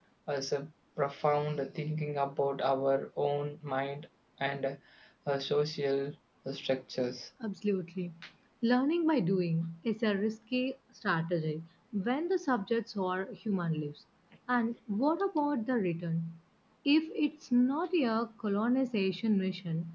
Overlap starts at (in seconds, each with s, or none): none